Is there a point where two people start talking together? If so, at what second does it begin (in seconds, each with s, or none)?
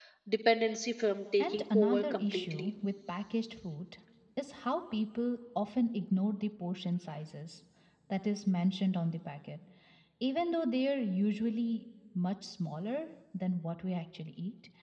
1.4 s